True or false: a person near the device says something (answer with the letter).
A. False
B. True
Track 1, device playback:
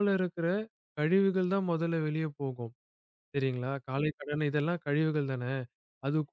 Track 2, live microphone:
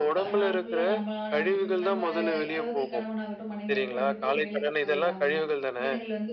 B